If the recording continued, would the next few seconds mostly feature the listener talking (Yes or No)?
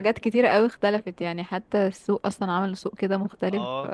Yes